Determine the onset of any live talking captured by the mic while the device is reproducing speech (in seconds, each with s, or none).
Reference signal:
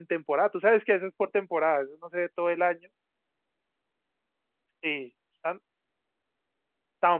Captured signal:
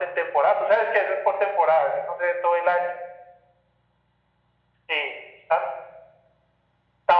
none